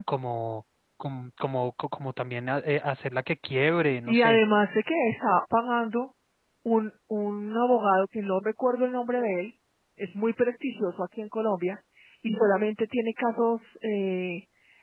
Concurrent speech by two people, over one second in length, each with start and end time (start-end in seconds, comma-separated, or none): none